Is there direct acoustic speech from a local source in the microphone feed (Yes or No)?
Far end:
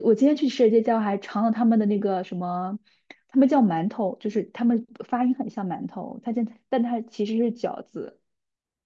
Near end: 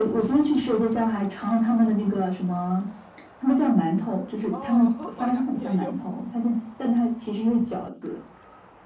Yes